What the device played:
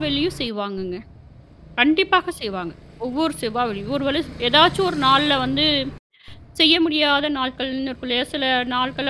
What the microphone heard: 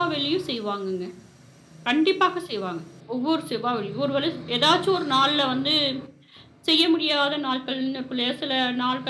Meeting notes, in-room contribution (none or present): none